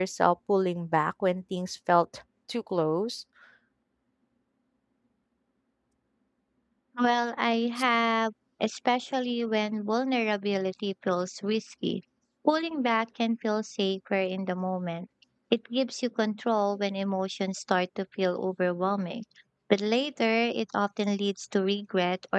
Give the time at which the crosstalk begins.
none

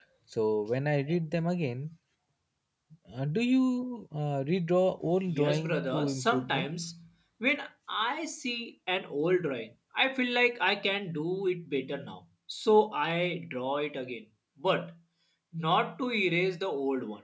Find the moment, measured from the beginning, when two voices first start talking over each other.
5 s

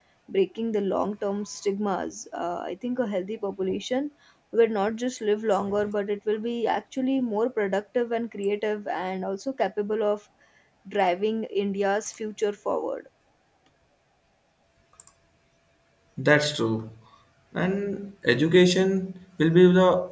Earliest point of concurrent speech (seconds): none

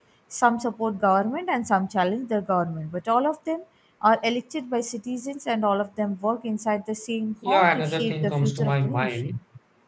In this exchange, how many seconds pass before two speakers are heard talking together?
7 s

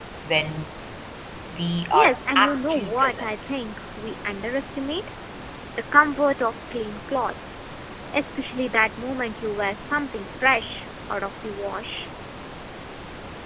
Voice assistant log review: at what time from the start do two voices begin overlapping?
2 s

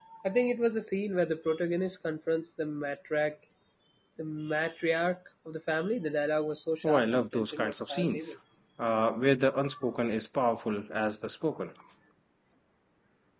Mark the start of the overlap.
7 s

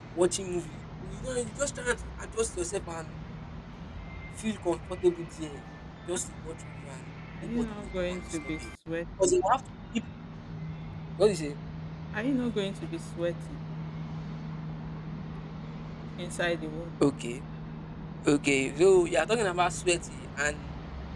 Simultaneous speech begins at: 7 s

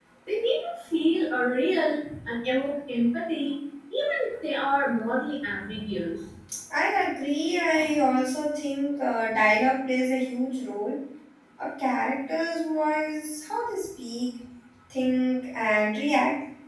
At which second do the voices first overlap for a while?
none

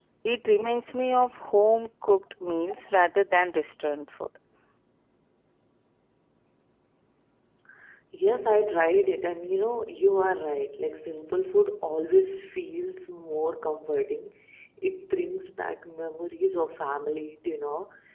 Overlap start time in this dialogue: none

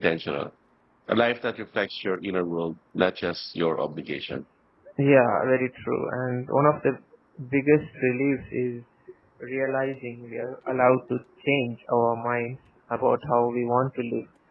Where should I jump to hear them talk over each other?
none

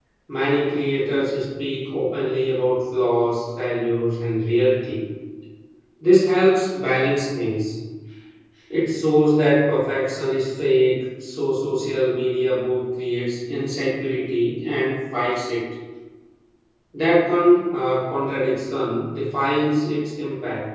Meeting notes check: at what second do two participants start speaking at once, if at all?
none

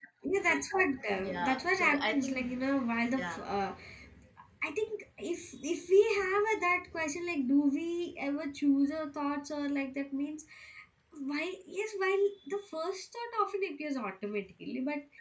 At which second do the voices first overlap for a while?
1 s

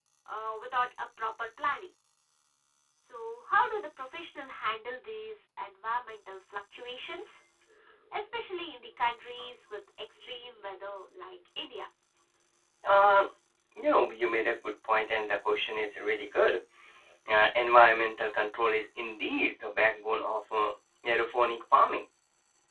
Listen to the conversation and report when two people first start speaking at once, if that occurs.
none

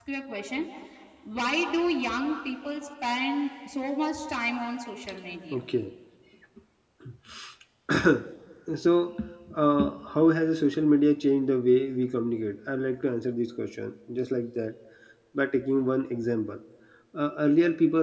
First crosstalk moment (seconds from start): none

